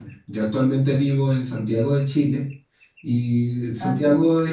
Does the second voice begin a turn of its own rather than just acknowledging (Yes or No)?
No